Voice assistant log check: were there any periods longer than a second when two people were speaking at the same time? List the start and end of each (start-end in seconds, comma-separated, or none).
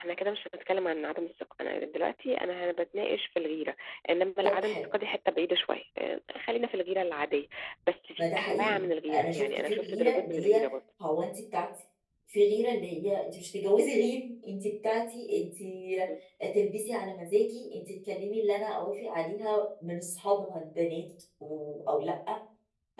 8.2-10.6